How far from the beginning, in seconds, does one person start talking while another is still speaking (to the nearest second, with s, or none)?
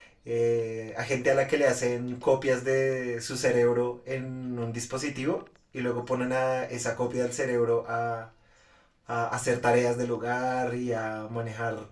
none